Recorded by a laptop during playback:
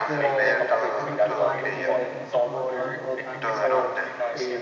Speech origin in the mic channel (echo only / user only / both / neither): both